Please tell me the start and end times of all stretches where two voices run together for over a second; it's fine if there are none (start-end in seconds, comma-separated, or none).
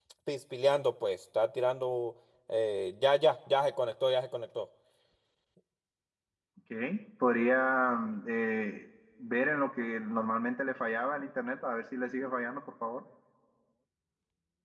none